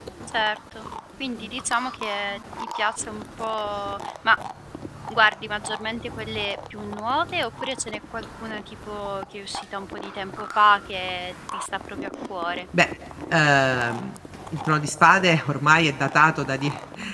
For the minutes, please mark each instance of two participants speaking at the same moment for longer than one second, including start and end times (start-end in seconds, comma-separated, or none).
none